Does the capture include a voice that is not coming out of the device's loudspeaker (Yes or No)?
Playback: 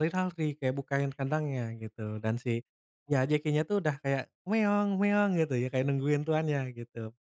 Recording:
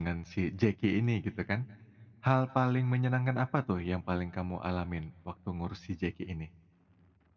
Yes